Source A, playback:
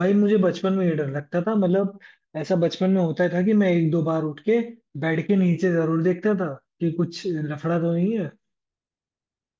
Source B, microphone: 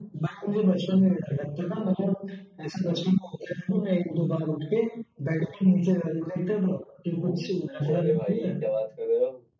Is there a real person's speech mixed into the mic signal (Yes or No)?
Yes